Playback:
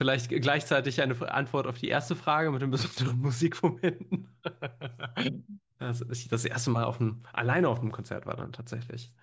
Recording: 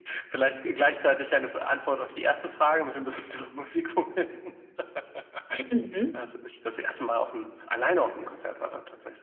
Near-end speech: present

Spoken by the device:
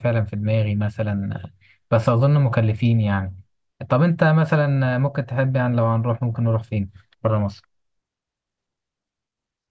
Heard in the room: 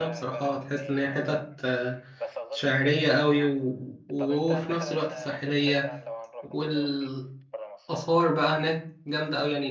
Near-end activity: present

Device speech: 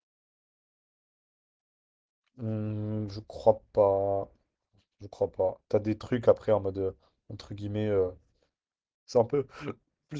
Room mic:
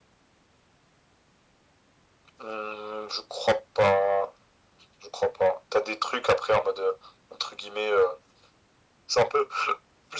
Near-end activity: none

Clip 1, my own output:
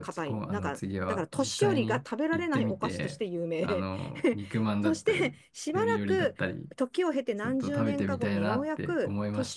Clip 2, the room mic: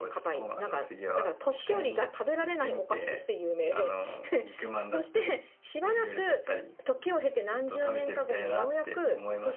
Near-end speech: none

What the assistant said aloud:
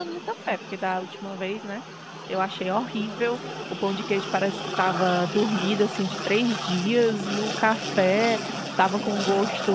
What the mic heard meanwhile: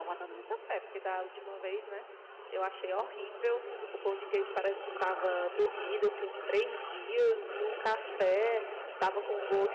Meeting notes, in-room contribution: none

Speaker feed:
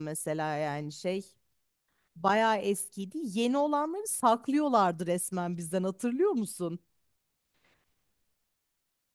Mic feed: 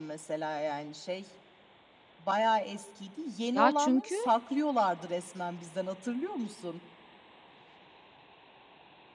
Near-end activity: present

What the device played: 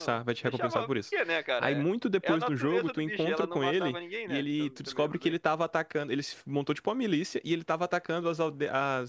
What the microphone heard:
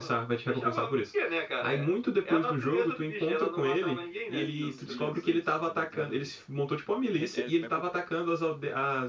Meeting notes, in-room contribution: present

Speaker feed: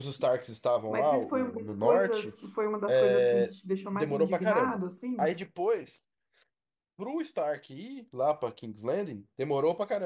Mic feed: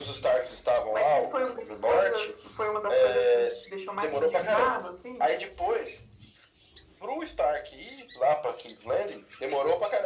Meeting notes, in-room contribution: none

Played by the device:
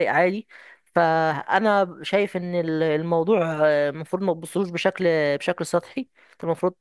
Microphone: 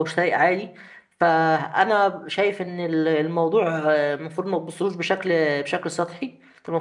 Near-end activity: none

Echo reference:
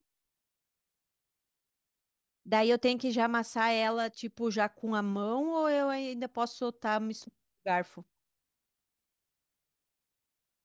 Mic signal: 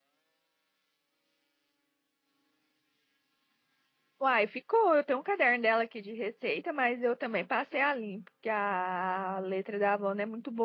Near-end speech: present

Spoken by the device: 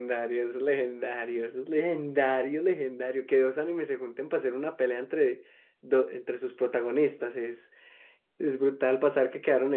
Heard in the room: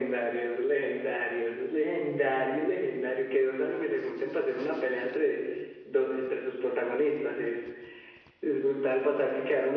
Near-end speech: none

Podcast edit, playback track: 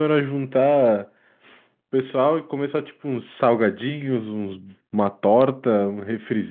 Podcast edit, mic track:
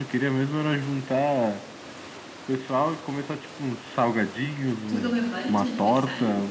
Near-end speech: present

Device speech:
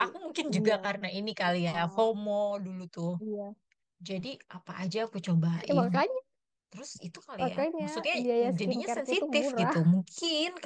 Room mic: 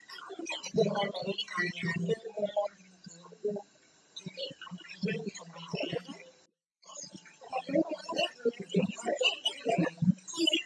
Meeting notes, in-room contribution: none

